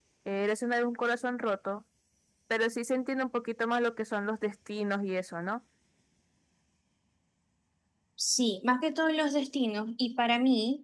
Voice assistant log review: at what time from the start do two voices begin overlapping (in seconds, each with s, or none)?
none